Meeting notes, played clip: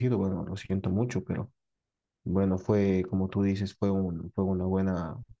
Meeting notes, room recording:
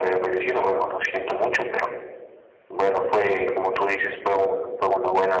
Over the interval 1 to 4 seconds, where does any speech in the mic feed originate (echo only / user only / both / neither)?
echo only